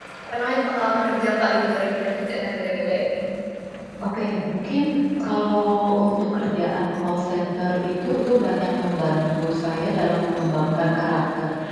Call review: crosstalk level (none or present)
none